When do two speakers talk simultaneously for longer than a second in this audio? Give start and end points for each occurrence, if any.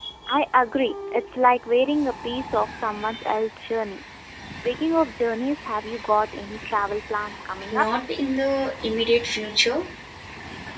none

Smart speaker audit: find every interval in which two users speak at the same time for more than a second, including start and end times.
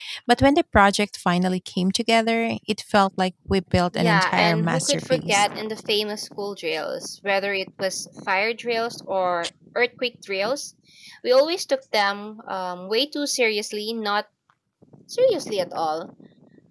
4.0-5.5

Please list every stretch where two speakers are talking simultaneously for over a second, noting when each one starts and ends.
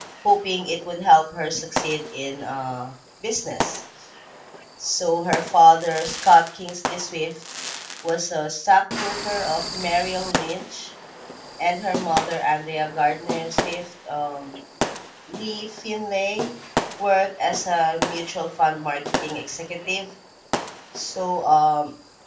none

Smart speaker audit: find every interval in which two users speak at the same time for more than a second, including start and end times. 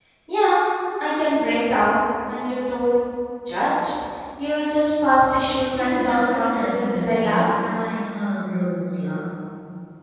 5.7-7.5

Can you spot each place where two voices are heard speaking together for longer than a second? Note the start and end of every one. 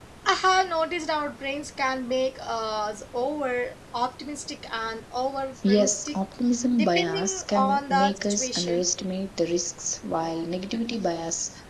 6.7-8.9

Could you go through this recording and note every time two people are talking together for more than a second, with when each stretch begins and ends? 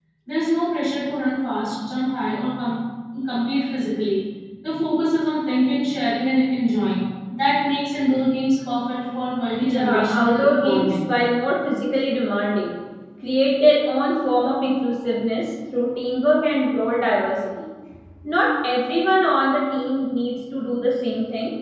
9.6-10.9

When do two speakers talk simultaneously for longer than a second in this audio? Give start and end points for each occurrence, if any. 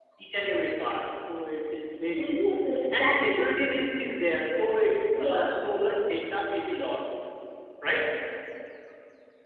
2.2-3.5

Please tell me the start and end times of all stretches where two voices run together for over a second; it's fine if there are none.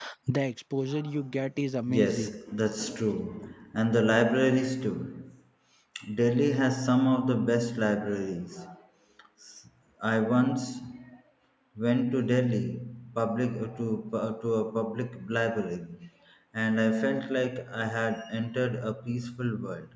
none

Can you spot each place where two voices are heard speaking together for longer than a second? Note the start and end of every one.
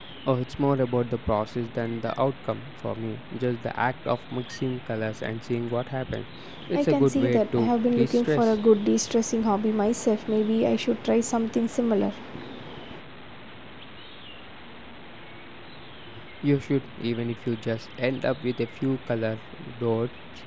6.7-8.6

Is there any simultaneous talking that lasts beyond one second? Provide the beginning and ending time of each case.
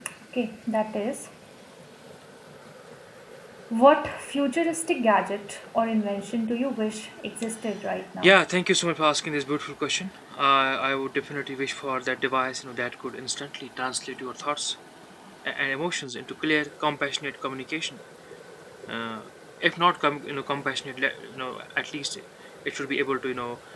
none

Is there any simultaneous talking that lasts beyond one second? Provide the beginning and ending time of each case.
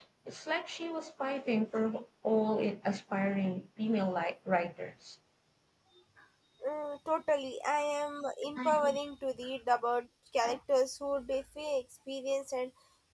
none

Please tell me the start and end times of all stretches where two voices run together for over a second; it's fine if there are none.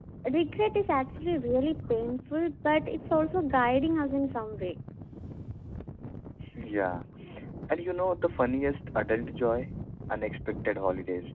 none

